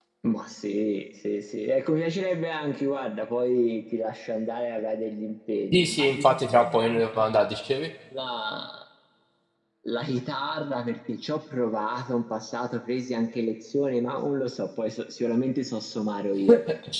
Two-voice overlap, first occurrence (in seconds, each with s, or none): 5.7 s